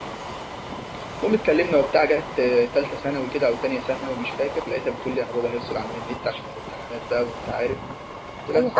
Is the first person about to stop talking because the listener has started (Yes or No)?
Yes